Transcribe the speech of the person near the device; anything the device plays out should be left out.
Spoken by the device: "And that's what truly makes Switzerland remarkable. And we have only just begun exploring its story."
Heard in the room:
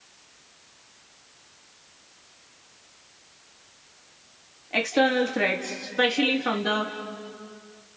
external threats, especially from the

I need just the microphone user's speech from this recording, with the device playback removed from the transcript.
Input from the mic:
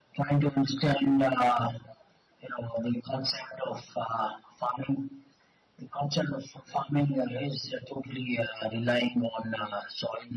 none

